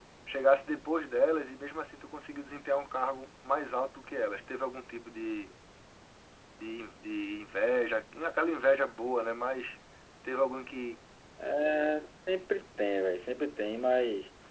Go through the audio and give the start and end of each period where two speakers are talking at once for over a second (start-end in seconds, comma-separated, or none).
none